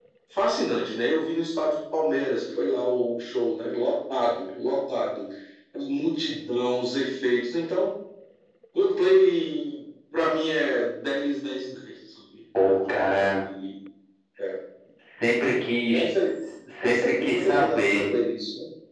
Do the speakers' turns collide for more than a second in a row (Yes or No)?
Yes